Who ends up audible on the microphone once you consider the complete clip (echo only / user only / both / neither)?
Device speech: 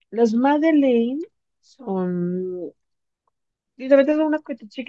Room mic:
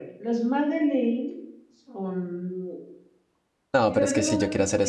both